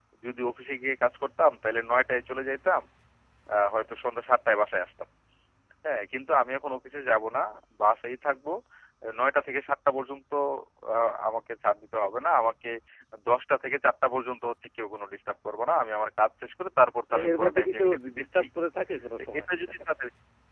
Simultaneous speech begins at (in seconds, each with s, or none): 17.1 s